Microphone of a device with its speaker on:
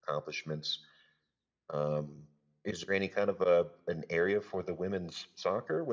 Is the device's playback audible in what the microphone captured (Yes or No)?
No